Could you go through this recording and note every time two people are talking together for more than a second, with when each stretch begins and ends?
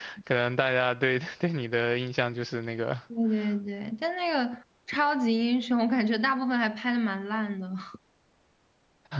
none

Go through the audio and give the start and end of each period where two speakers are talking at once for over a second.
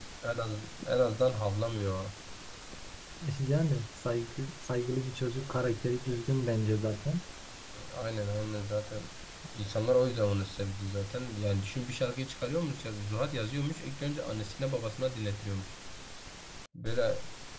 none

